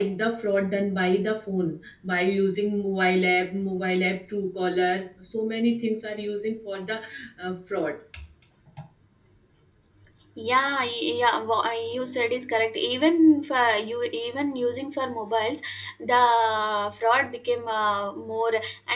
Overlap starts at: none

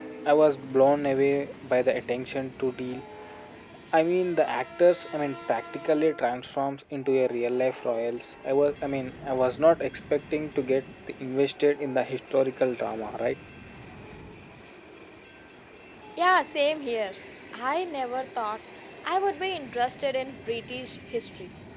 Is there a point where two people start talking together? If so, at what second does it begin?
none

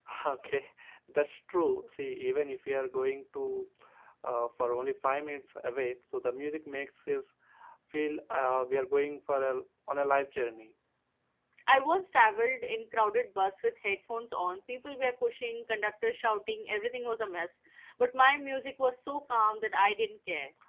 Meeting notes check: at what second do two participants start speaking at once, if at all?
none

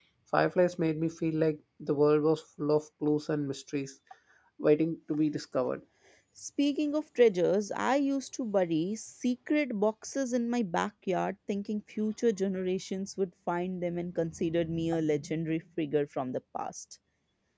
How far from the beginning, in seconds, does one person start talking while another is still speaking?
none

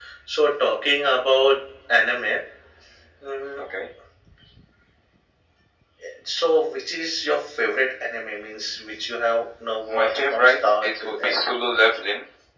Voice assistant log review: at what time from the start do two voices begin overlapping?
9.9 s

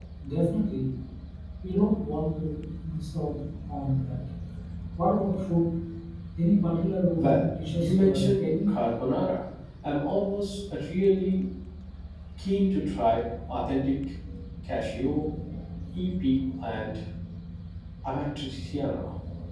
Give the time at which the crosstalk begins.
7.2 s

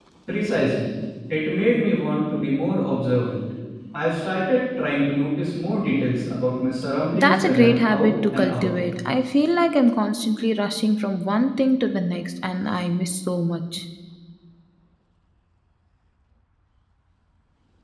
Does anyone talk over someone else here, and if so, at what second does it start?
7.1 s

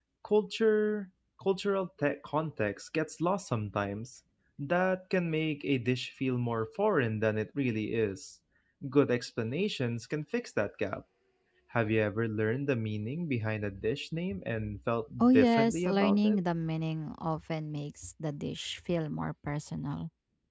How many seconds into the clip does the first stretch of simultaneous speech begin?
15.2 s

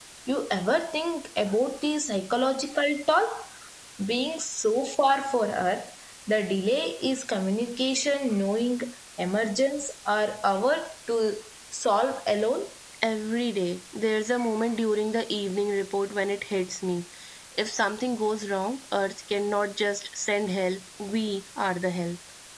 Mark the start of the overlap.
none

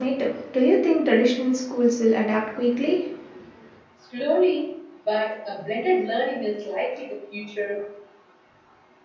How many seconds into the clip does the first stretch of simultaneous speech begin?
none

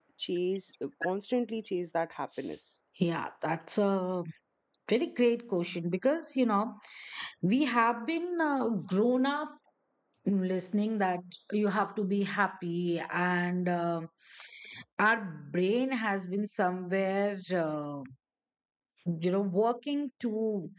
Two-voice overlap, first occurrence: none

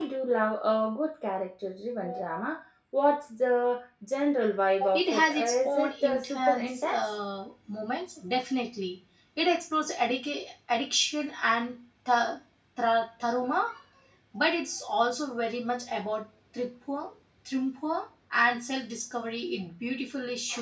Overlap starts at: 4.9 s

